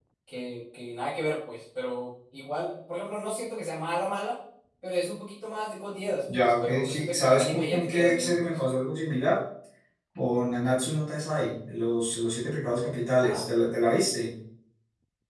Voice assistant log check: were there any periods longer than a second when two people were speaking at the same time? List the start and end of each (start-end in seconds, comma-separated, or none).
6.4-8.5